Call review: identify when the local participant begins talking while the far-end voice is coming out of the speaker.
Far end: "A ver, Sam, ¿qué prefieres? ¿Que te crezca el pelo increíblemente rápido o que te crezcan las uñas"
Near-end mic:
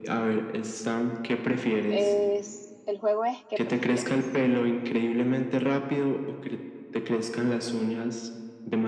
1.9 s

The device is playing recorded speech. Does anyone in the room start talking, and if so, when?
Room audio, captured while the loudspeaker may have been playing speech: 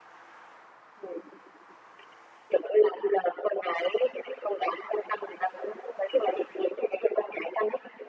none

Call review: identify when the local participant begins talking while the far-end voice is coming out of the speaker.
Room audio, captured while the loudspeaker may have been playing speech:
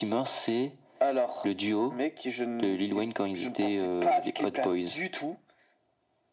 none

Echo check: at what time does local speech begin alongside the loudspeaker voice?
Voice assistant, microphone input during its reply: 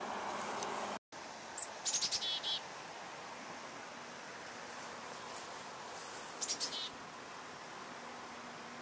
none

